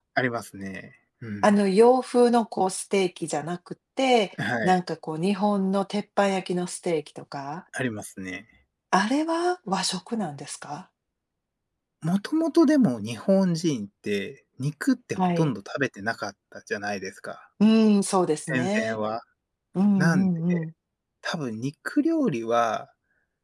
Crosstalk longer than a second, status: none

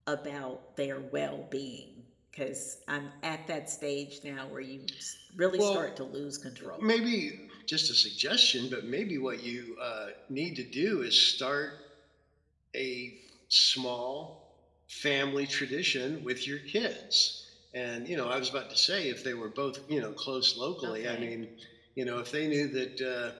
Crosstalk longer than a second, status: none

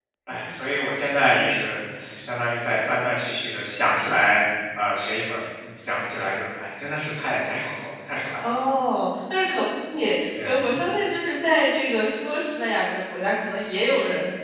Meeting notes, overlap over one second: none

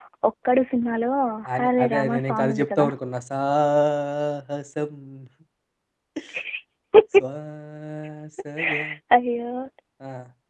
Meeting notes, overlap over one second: present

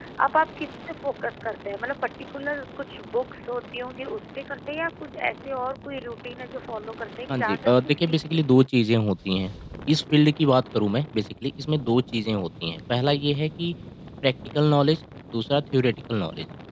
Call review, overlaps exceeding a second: present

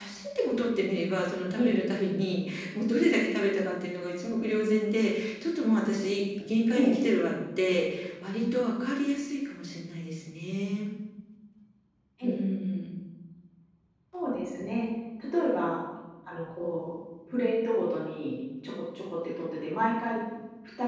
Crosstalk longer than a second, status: none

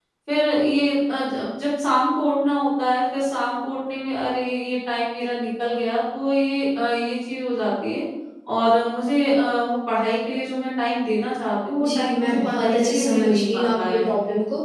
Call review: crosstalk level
present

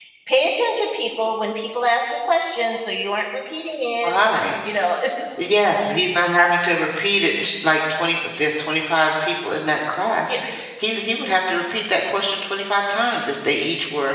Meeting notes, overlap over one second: none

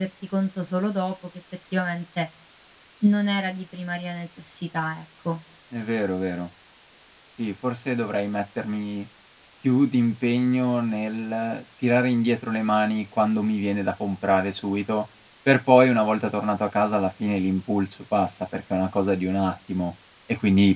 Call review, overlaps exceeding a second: none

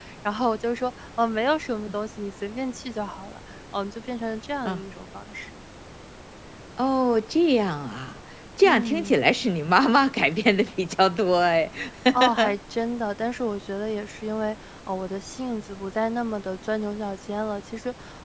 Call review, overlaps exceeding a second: none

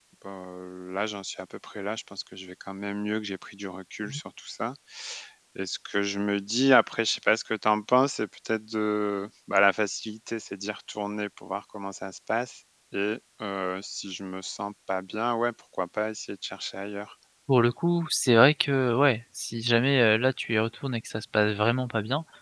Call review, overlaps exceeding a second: none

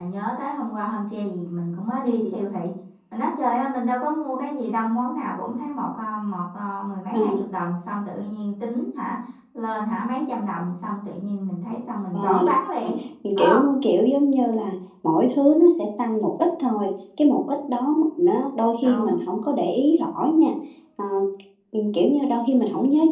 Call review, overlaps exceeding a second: none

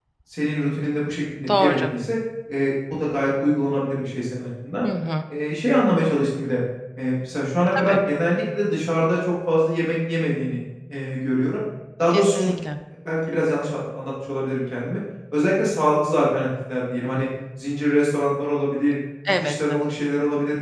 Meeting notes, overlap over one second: none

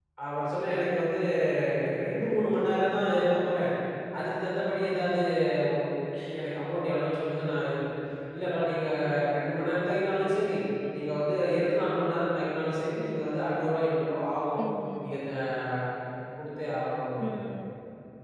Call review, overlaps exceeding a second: none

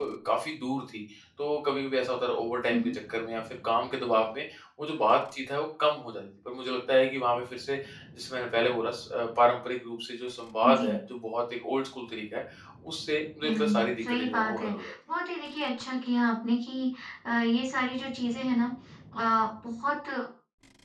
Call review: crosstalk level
present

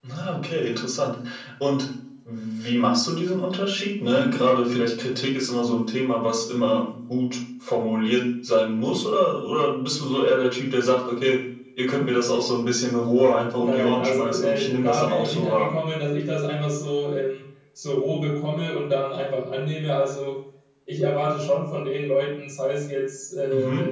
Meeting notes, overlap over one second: present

